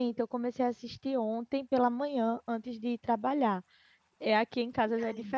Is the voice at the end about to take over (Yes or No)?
No